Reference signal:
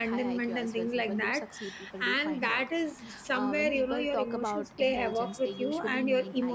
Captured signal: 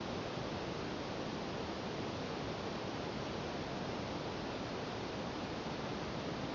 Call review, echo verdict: none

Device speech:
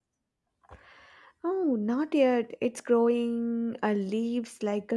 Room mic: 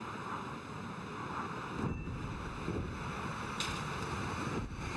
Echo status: none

